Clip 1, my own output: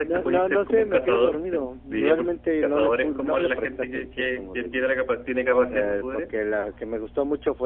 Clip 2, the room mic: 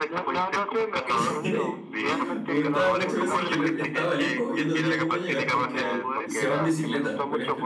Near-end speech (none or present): present